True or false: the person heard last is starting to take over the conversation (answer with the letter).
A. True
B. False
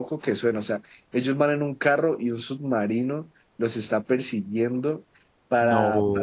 B